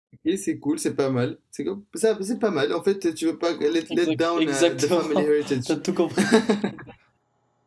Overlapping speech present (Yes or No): Yes